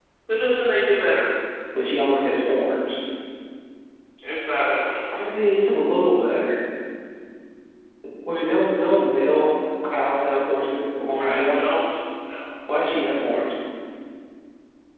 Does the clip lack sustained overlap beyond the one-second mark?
Yes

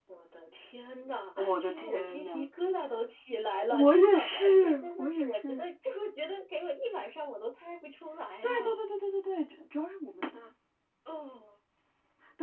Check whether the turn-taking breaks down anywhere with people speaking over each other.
Yes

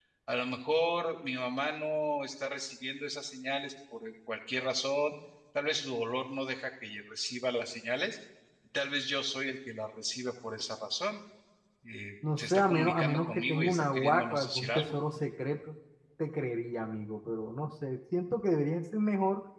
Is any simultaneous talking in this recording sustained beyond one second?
Yes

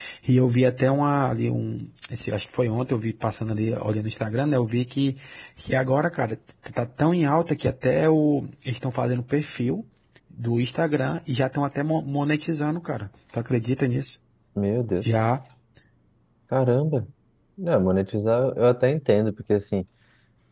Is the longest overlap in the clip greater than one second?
No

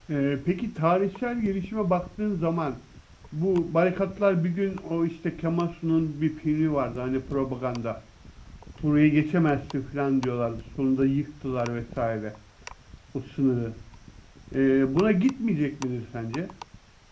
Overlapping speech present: No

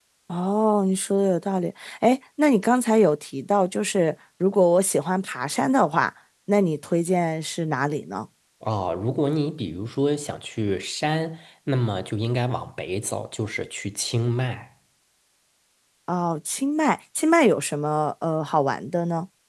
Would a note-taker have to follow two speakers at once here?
No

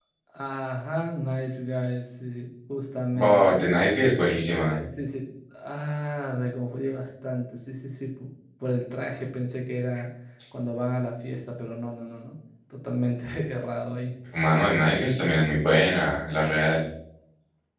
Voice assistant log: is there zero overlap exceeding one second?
Yes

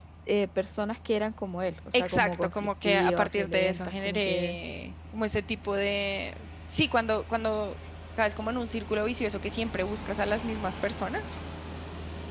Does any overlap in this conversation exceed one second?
Yes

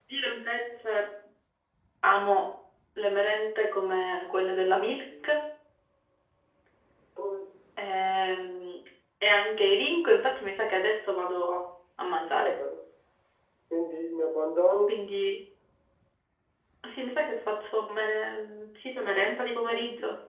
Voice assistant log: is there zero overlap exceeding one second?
Yes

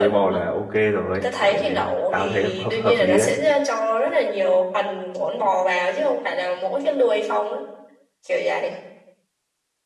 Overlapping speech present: Yes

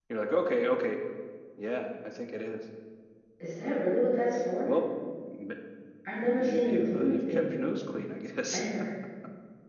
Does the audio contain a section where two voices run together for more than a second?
Yes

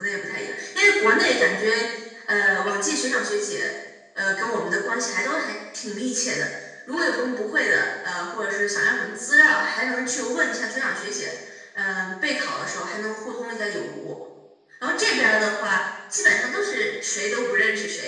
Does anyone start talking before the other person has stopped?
No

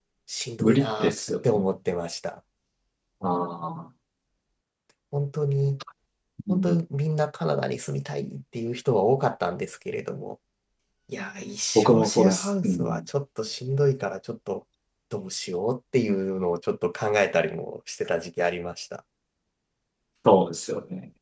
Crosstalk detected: Yes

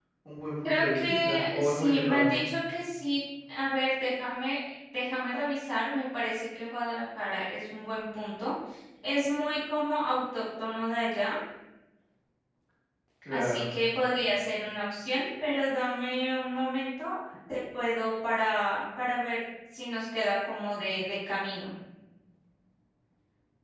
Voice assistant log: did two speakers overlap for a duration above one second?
Yes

